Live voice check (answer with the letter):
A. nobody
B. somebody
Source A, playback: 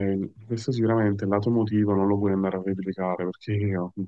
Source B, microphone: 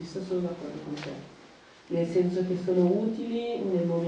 B